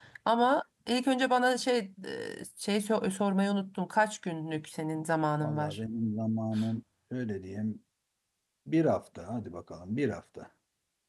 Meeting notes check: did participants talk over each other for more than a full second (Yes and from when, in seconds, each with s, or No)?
No